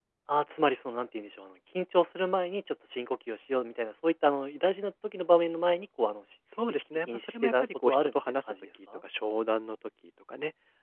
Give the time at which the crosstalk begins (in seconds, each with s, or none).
6.5 s